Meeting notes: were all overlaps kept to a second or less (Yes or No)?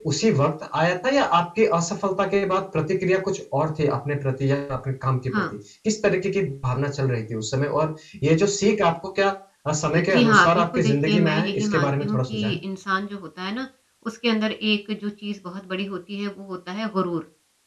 No